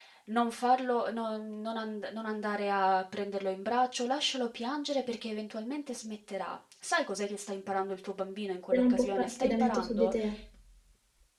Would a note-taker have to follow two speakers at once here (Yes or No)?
Yes